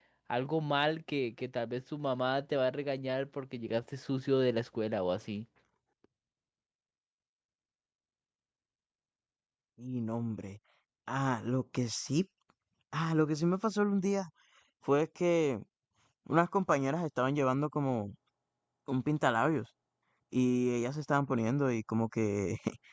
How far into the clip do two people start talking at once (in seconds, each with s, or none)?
none